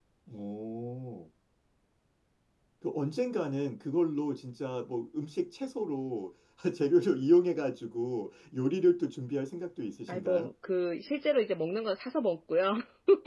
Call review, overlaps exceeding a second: none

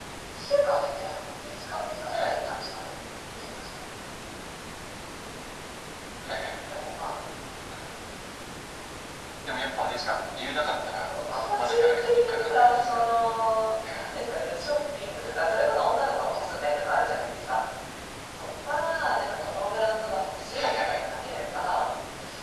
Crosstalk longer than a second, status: present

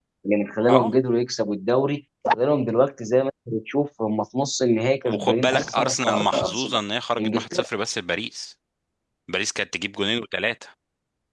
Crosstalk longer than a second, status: present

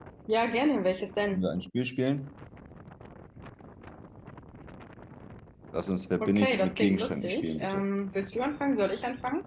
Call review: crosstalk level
present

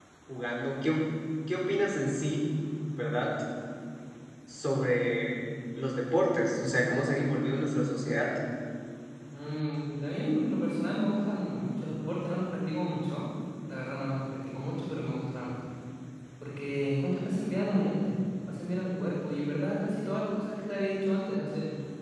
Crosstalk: none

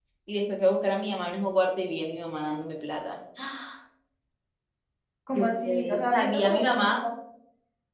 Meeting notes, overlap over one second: present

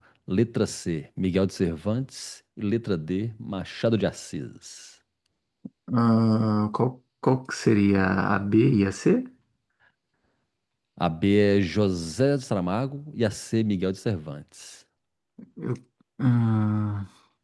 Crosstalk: none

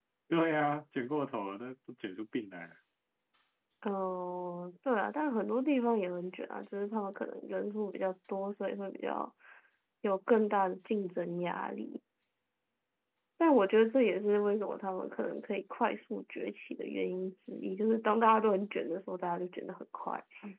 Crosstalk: none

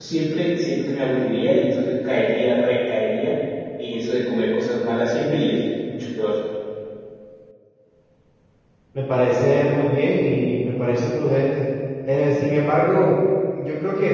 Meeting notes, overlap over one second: none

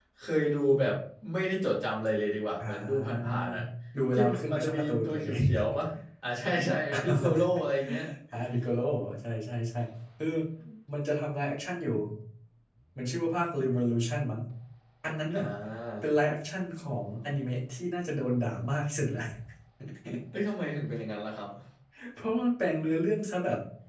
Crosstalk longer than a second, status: present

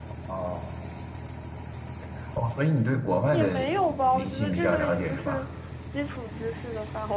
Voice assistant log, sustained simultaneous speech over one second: present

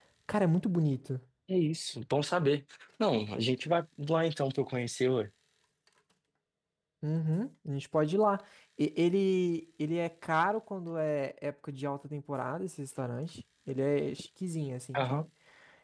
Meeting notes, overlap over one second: none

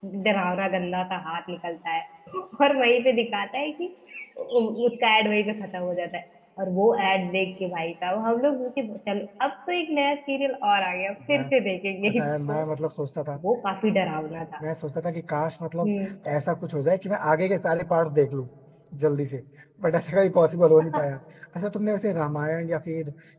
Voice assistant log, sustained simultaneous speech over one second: none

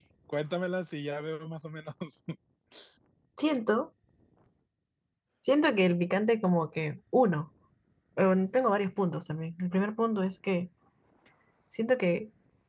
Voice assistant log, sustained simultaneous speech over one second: none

